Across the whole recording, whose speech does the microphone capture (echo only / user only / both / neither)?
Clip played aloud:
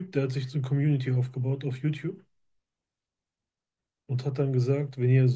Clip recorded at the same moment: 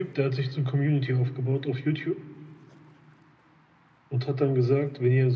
echo only